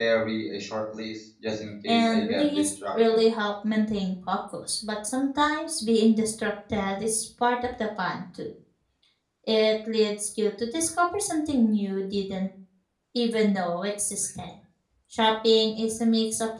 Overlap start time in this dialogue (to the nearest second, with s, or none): 2 s